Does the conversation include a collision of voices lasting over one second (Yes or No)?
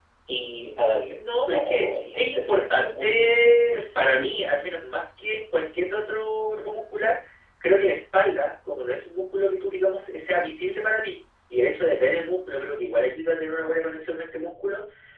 Yes